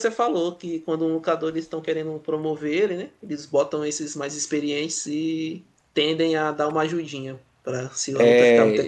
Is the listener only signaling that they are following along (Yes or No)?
No